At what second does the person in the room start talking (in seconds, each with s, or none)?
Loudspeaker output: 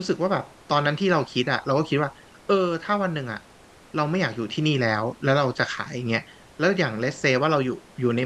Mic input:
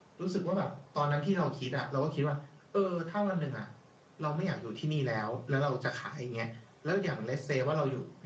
none